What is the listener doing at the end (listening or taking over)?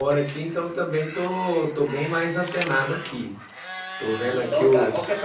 taking over